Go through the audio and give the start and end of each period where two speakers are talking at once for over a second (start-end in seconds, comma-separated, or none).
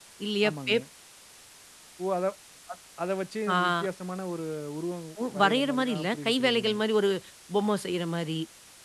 5.3-6.8